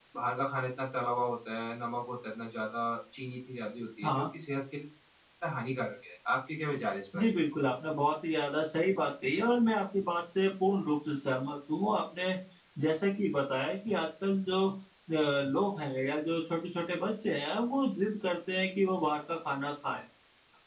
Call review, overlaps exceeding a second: none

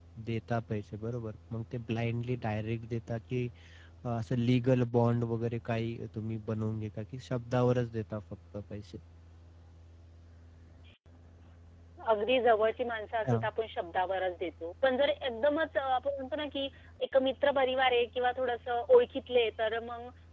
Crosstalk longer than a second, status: none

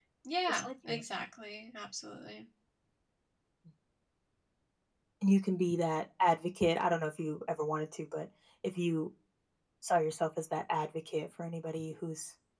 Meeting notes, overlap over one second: none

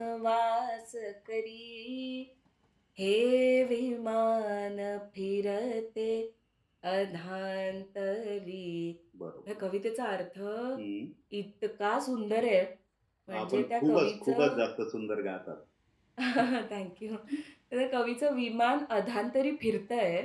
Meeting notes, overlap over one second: present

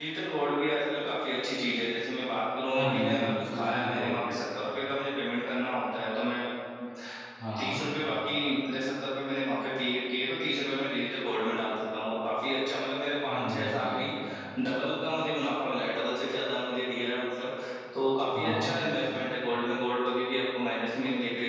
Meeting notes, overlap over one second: present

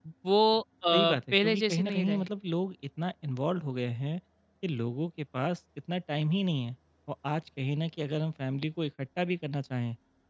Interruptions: present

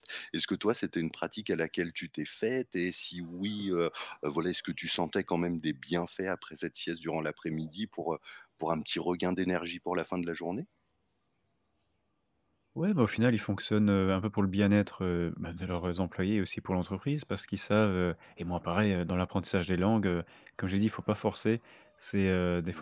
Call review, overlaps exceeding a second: none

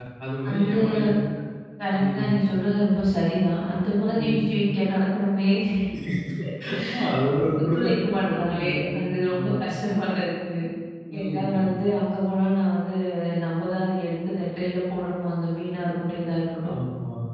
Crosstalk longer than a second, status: present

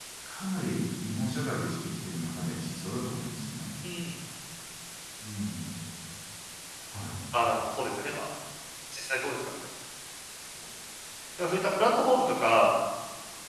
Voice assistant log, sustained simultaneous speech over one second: none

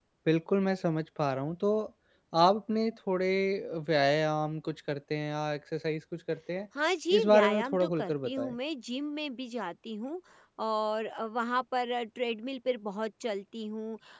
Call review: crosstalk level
present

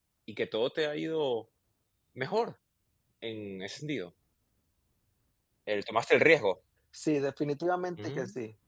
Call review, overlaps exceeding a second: none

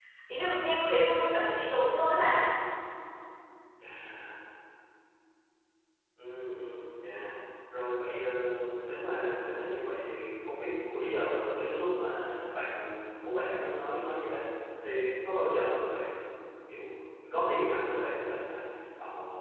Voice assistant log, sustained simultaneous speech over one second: none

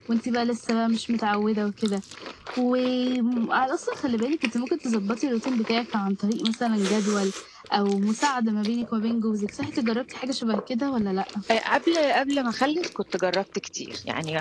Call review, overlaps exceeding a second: none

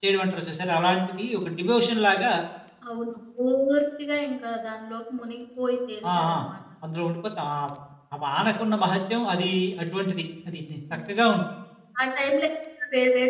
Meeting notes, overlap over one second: none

